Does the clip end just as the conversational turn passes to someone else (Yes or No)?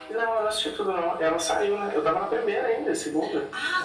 Yes